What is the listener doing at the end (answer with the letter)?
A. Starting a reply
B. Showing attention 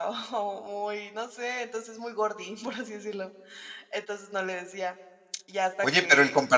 A